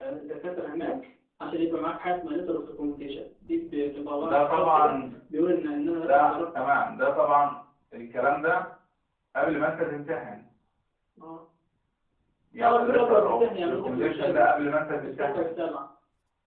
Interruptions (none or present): present